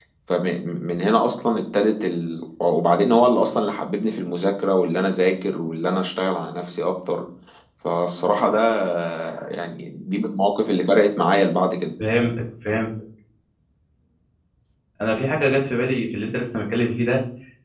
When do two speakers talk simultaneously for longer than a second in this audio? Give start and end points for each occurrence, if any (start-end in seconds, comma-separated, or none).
none